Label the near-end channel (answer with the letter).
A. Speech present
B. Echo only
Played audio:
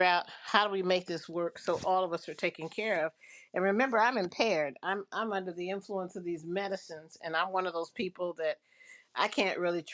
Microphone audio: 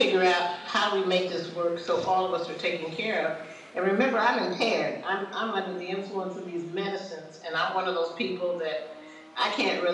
B